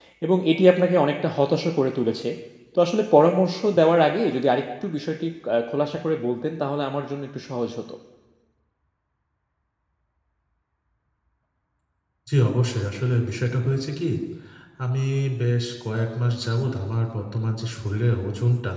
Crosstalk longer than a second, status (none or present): none